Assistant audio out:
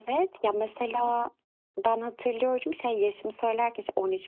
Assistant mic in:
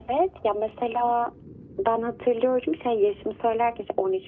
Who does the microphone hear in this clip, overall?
echo only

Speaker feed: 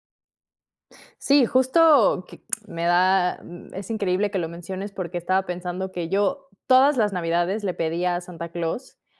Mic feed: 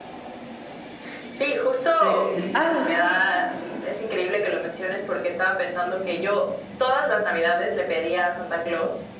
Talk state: both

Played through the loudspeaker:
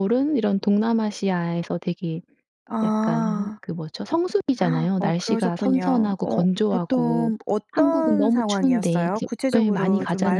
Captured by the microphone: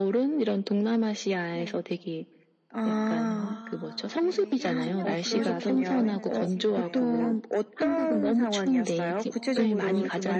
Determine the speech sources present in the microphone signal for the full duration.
both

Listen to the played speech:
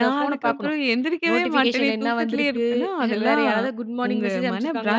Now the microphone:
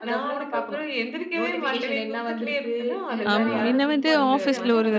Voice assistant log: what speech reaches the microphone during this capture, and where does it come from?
both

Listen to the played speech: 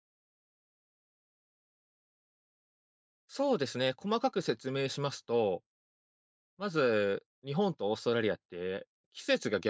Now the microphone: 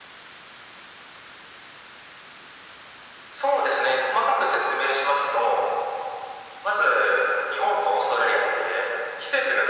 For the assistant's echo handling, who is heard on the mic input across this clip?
echo only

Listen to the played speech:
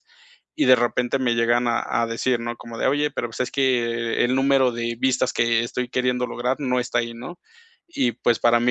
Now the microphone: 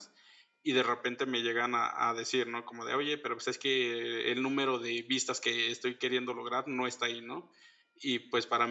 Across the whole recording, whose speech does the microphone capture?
echo only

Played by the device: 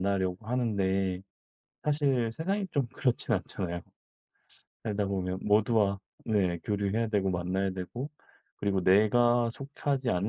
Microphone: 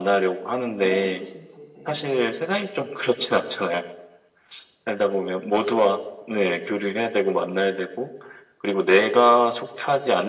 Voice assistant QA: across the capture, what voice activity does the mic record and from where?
both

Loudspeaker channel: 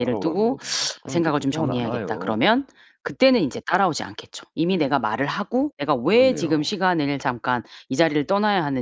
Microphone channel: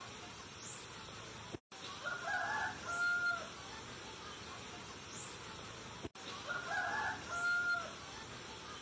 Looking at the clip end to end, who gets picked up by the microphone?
neither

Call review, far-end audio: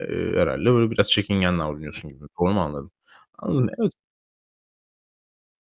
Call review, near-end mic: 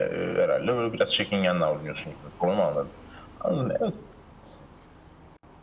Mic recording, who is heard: echo only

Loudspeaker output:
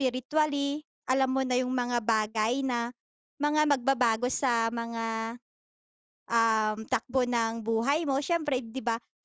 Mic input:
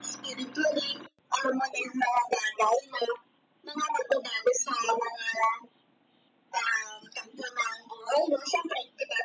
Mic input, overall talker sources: echo only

